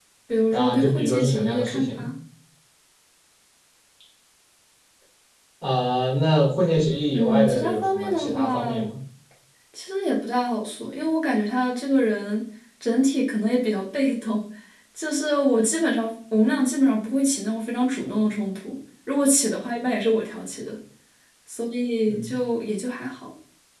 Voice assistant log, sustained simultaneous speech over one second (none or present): present